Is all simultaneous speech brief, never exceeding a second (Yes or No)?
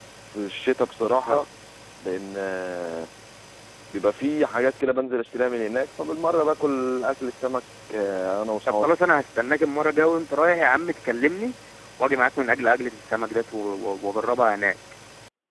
Yes